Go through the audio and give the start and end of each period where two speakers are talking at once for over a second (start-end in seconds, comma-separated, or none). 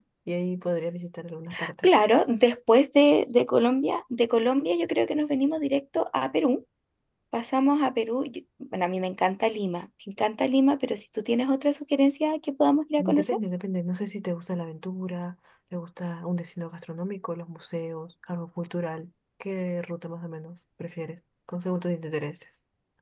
none